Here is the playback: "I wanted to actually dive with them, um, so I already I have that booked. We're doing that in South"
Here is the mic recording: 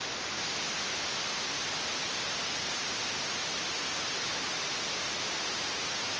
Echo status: none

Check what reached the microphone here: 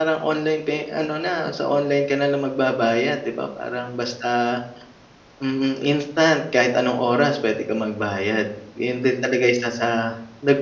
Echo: none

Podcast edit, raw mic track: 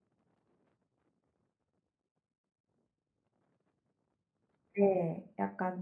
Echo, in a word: none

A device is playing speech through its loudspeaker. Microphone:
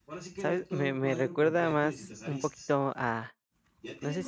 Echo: present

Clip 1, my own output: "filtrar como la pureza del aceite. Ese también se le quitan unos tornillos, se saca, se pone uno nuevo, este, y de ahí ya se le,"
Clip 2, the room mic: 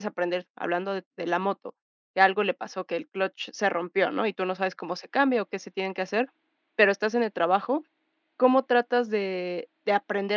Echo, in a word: none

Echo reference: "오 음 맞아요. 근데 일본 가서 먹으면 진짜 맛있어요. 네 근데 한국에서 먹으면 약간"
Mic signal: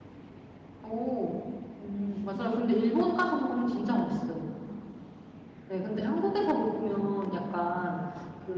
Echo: present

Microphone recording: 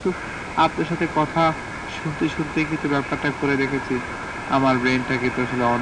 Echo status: present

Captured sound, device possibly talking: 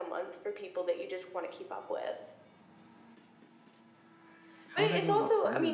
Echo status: present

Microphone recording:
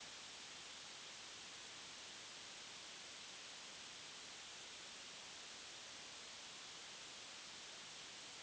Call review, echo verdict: none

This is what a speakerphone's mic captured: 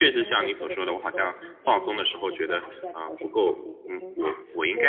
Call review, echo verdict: present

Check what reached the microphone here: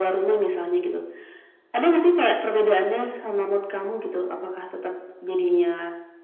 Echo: present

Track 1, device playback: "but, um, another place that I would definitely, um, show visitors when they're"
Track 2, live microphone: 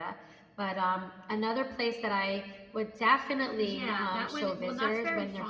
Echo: present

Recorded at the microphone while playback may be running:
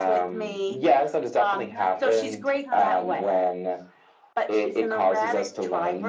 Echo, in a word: present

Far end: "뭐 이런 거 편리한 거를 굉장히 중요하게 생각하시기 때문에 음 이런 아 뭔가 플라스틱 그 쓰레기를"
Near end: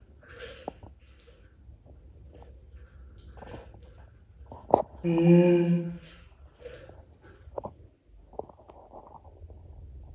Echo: none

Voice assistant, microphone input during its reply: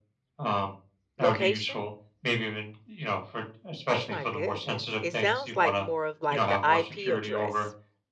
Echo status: present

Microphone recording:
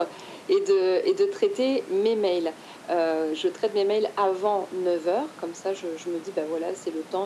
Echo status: present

